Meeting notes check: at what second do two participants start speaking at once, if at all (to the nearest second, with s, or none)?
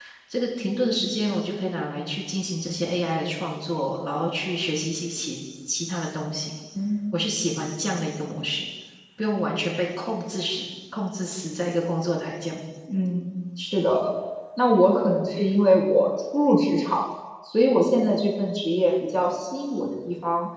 none